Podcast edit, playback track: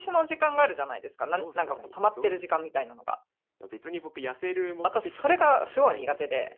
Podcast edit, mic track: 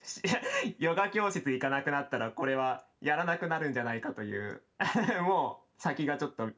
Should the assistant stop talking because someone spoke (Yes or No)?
Yes